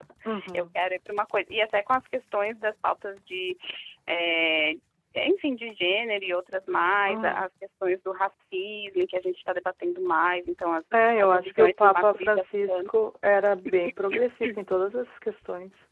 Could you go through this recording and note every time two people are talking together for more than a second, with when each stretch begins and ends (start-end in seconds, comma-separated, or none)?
11.2-12.8